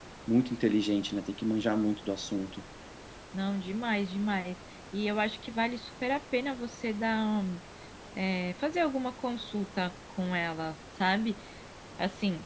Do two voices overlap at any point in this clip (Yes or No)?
No